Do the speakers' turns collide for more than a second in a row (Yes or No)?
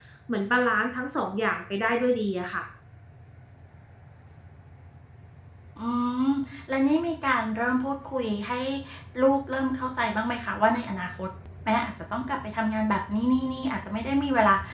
No